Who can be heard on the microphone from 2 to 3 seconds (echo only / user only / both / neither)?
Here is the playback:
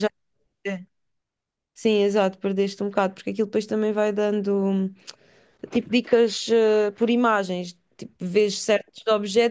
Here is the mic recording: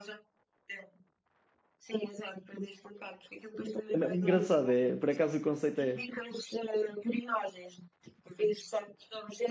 echo only